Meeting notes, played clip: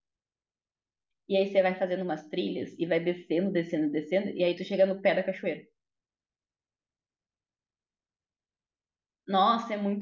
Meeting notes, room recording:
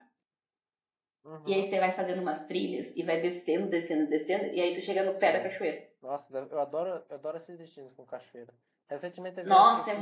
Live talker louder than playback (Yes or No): No